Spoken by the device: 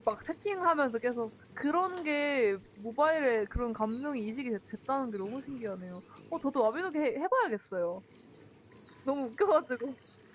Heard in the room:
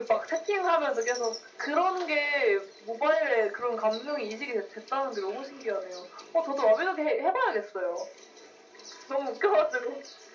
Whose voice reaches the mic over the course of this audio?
echo only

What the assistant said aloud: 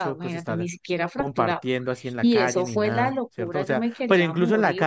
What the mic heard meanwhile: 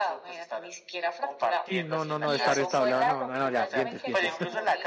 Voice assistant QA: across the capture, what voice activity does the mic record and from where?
both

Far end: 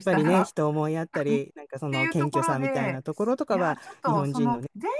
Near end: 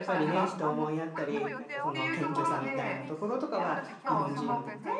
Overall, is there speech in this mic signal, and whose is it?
both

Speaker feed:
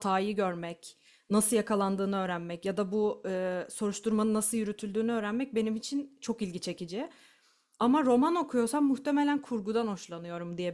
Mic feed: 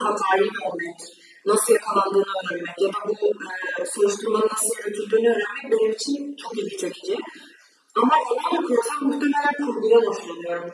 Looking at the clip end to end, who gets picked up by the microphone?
echo only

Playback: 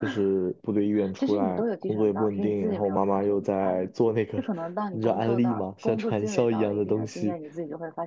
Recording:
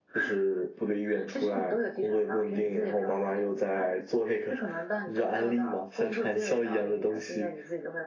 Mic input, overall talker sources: echo only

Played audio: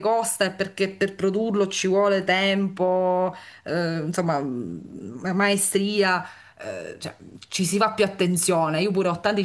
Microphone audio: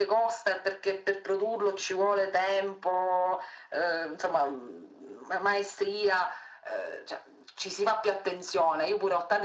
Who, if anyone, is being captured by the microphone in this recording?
echo only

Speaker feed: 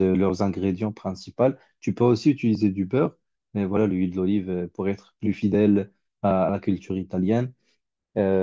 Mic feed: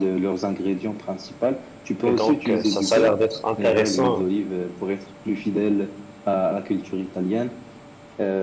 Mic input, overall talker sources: both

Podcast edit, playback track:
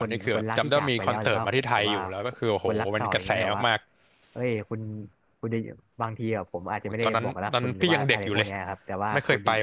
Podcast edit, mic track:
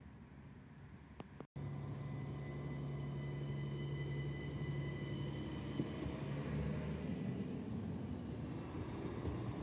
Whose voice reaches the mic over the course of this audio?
neither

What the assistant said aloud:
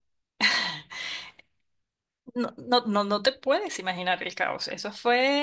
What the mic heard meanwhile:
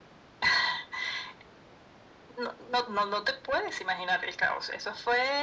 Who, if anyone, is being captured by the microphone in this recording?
echo only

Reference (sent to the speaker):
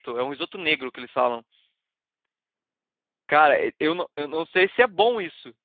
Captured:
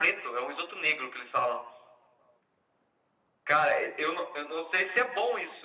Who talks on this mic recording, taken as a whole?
echo only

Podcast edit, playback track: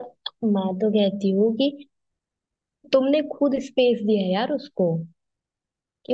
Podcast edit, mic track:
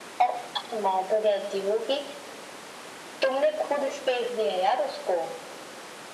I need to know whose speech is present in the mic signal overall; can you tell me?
echo only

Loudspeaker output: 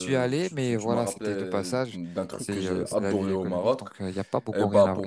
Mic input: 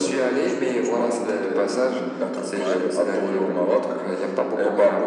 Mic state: both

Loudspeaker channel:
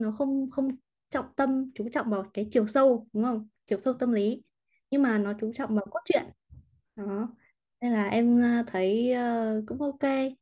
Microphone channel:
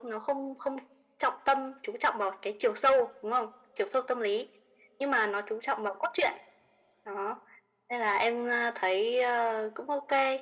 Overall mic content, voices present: echo only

